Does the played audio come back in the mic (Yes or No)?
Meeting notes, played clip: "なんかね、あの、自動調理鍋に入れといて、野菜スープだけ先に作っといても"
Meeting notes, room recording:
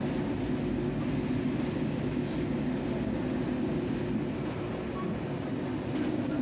No